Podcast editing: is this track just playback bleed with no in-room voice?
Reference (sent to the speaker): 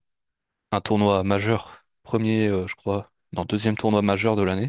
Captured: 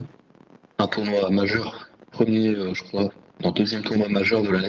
Yes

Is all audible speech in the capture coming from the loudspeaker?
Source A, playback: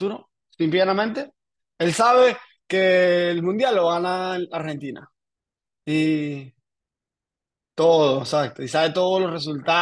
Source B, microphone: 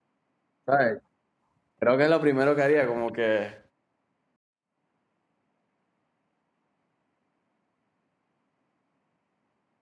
No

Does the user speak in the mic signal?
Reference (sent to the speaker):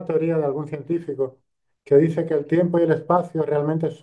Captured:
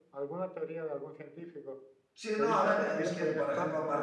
Yes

